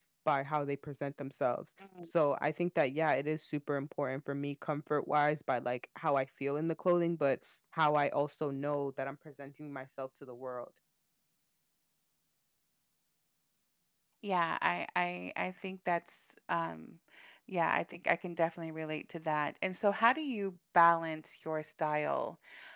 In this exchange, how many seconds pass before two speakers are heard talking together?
none

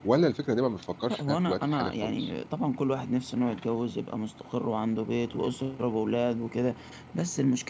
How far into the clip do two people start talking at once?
1.1 s

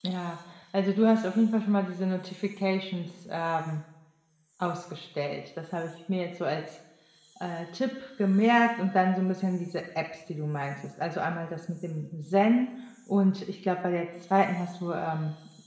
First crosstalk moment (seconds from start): none

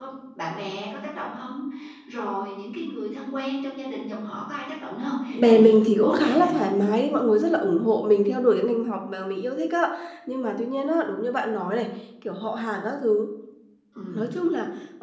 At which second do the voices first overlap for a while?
5.3 s

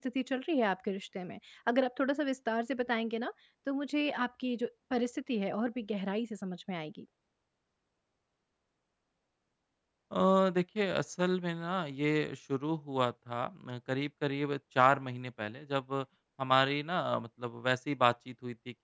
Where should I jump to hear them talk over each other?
none

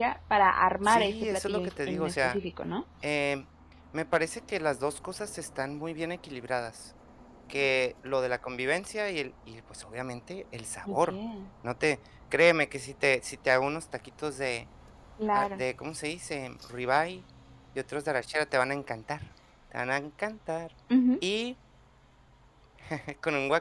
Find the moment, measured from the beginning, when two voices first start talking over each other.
0.8 s

